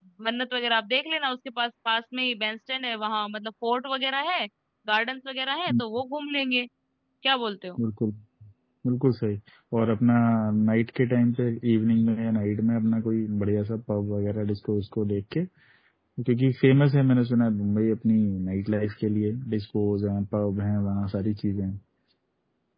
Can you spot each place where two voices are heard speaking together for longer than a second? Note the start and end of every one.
none

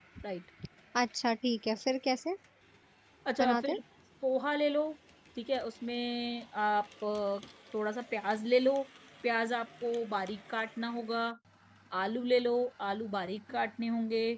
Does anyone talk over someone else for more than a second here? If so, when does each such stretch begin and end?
none

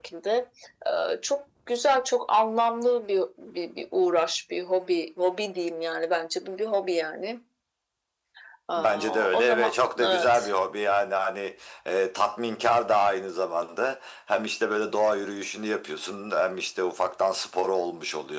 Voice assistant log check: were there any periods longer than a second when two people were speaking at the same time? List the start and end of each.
8.8-10.4

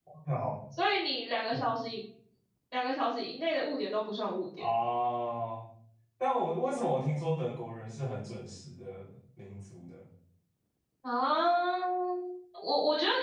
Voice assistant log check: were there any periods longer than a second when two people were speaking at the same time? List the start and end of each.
none

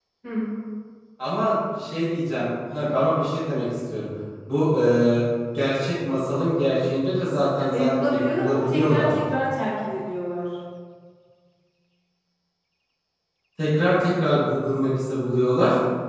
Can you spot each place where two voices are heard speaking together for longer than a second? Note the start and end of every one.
7.7-9.1

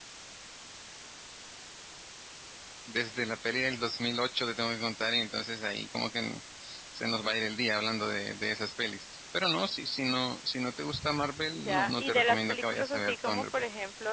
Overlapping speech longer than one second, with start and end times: 11.5-13.4

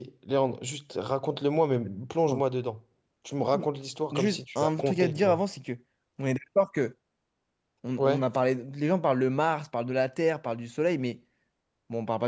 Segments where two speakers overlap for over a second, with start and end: 4.1-5.4

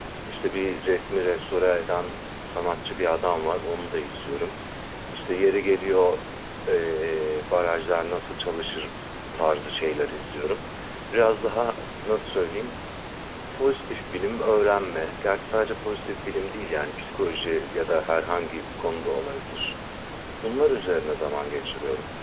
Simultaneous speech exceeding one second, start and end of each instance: none

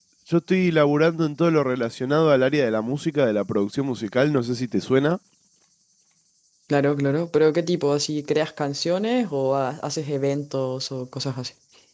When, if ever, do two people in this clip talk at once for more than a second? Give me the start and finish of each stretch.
none

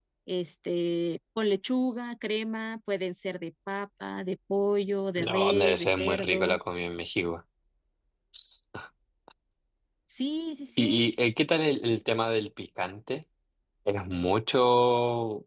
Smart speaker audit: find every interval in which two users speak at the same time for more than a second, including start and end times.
5.2-6.6

